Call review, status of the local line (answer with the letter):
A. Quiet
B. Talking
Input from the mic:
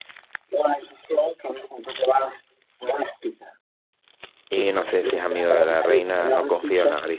B